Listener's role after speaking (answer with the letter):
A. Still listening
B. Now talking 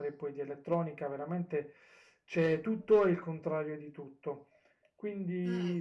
A